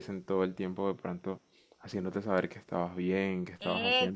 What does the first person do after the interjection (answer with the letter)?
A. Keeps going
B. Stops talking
B